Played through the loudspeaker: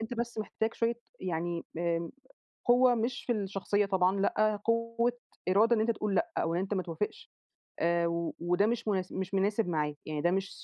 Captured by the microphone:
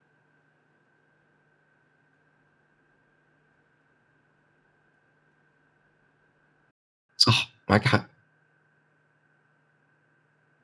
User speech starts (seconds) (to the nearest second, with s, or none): 7 s